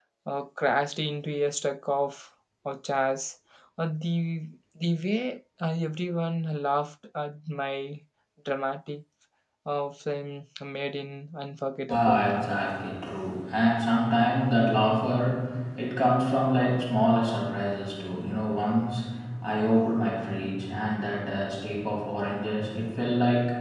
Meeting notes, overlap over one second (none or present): none